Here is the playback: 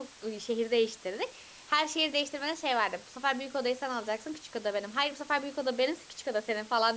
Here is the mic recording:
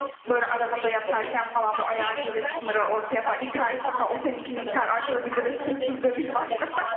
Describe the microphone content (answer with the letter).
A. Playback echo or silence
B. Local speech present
B